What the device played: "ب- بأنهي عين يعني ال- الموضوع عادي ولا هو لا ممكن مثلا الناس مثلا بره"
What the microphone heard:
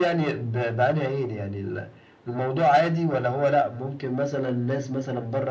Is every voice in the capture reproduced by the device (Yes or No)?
Yes